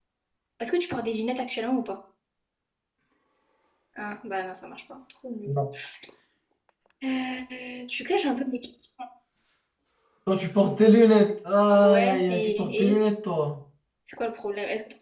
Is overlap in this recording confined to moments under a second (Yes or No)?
No